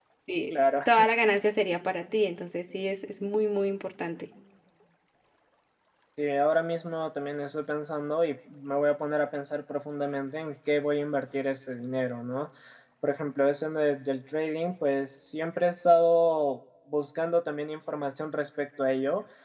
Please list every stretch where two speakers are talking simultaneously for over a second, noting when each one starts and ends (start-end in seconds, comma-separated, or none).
none